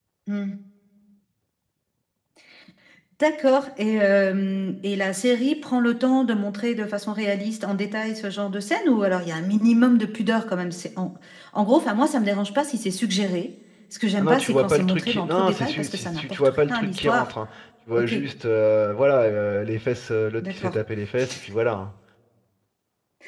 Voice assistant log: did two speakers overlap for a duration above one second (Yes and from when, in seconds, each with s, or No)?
Yes, from 14.2 s